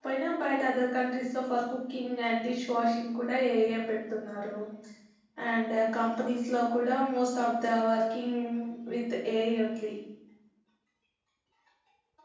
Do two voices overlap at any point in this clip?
No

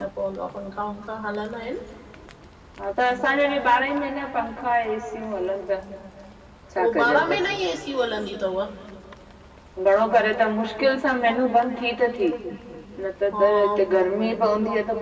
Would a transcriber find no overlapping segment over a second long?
Yes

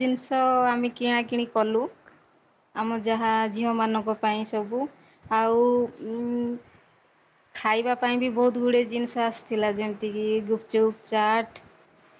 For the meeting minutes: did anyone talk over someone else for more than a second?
No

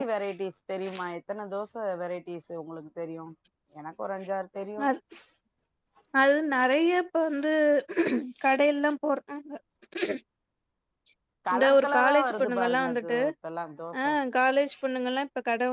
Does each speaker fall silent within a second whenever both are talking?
No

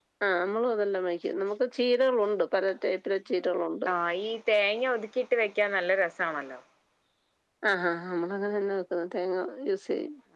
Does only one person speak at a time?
Yes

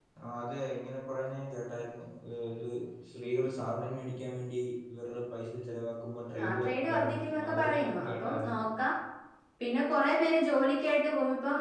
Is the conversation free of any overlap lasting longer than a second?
No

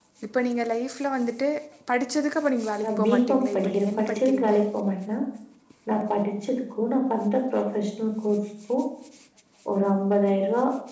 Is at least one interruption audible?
Yes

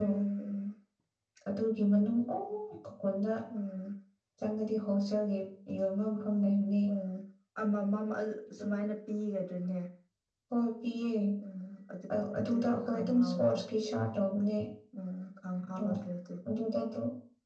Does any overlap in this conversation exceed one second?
Yes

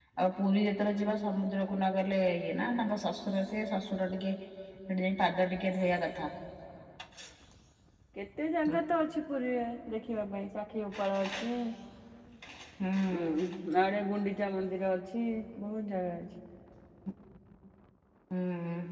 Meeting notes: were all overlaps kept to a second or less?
Yes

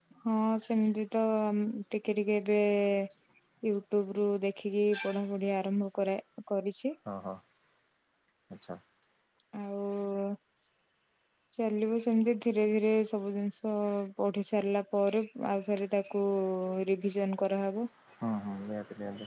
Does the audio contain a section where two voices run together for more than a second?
No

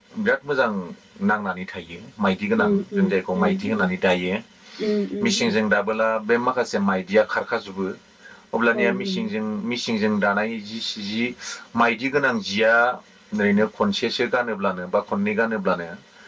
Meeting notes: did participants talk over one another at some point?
Yes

